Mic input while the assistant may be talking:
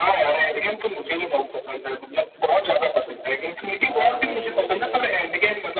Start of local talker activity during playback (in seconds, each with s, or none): 3.9 s